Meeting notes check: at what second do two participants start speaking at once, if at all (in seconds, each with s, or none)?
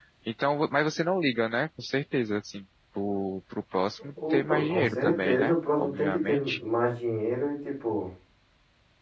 4.2 s